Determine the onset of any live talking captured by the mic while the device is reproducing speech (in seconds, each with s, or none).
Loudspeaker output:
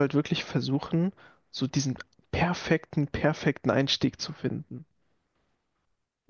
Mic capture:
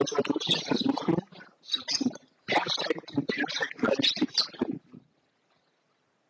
none